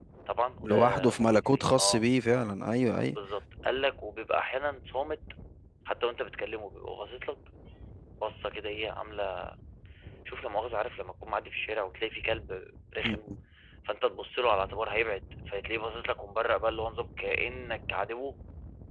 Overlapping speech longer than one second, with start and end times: 0.6-2.0

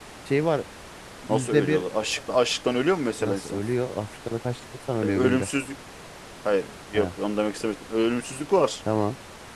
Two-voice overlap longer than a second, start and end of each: none

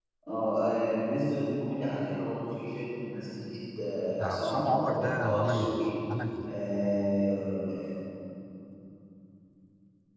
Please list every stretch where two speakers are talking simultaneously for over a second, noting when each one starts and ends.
4.2-5.8

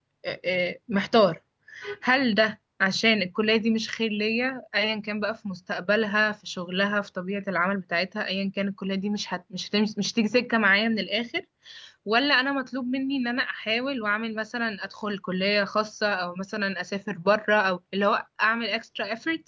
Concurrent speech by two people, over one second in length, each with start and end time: none

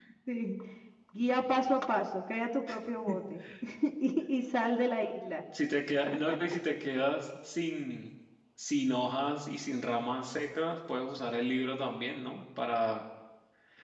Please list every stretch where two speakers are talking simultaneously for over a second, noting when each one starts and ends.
none

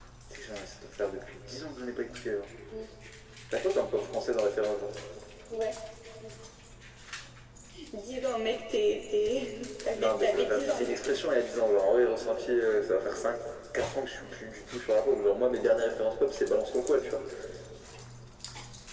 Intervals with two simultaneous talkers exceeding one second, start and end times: 9.9-11.2

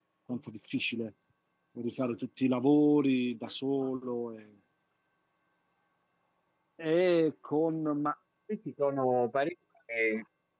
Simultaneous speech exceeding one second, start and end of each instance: none

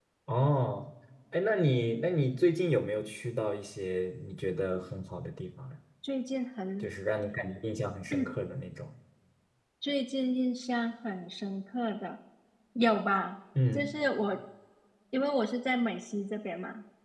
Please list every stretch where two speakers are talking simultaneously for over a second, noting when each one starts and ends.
none

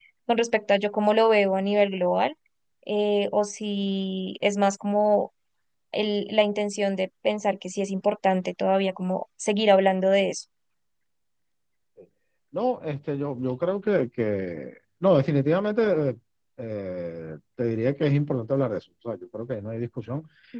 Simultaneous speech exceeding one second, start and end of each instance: none

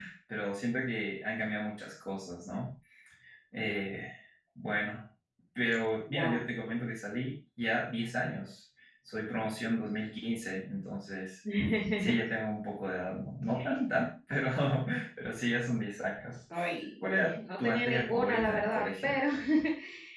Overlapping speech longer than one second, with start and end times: 17.0-19.2

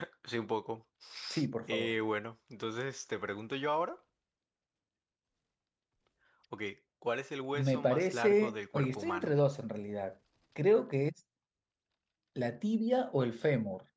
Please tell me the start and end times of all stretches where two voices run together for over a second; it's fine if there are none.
7.5-9.3

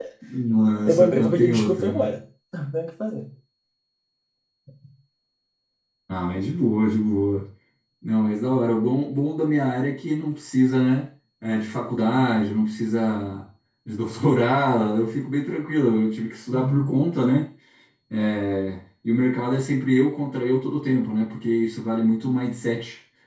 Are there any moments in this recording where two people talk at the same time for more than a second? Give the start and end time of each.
0.8-2.1

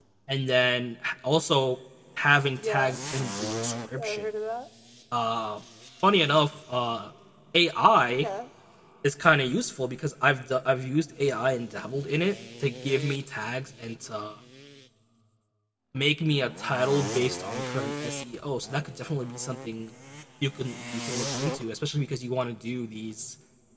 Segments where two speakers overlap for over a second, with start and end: none

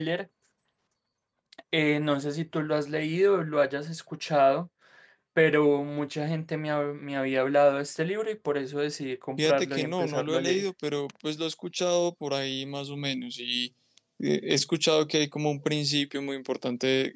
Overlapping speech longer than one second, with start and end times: 9.4-10.6

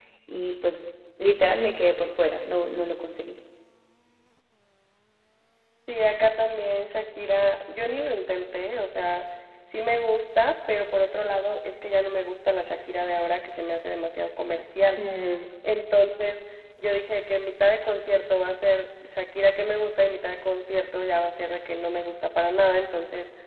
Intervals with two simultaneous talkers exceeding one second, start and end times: none

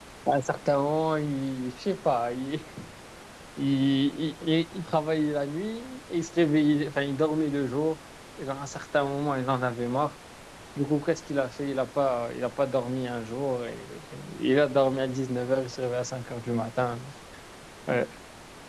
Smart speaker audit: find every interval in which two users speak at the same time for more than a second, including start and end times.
none

